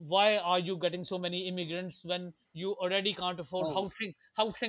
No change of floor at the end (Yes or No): Yes